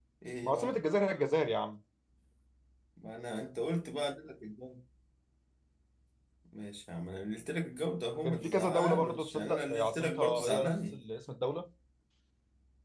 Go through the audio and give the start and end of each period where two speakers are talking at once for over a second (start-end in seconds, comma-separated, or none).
8.2-11.0